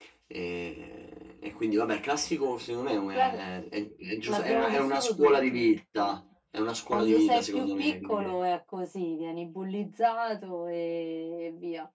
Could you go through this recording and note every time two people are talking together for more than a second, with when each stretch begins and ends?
4.3-5.6, 6.9-8.4

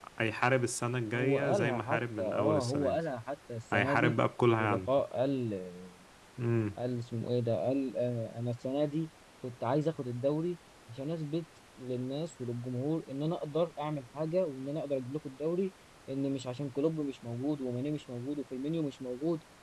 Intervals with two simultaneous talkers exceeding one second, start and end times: 1.1-3.0

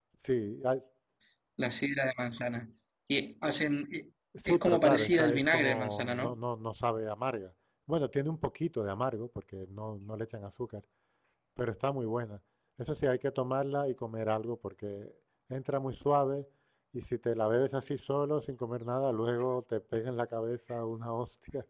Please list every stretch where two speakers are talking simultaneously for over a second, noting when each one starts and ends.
4.5-6.4

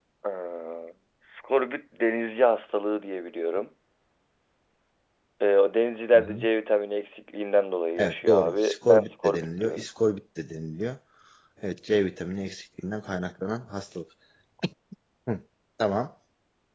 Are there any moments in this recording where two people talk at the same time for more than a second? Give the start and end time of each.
8.0-9.8

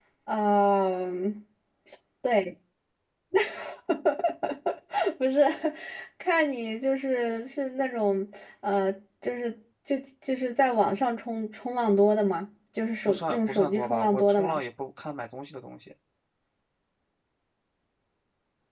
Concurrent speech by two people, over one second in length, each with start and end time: 13.1-14.6

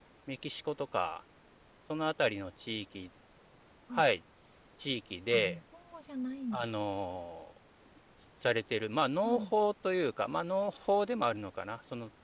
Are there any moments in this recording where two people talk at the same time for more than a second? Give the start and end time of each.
none

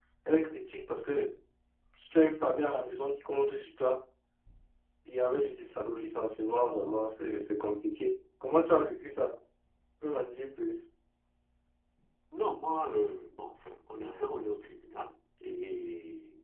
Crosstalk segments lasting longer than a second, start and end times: none

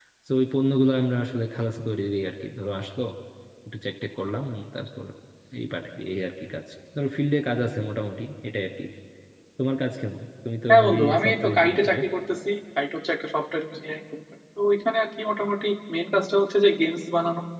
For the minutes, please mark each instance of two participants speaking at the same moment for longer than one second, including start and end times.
10.7-12.0

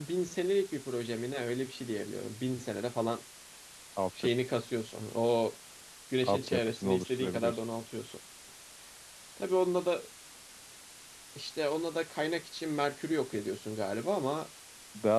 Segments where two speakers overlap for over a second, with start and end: 6.2-7.6

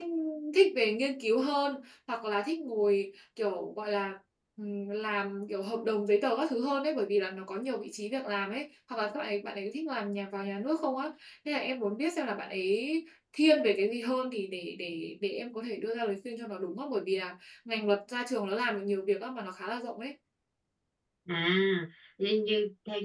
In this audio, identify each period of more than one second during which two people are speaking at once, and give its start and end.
none

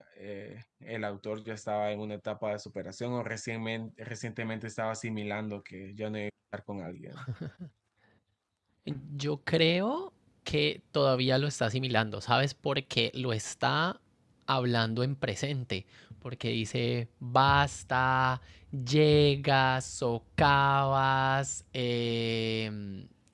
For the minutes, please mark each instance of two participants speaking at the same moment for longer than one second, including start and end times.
none

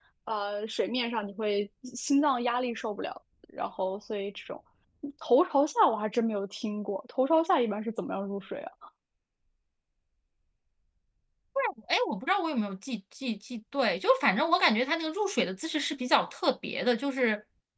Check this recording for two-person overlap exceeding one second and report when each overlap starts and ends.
none

